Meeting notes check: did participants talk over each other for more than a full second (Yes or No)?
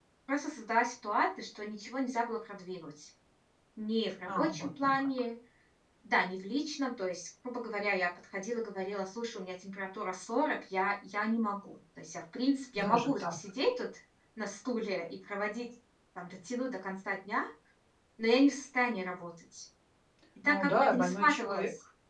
Yes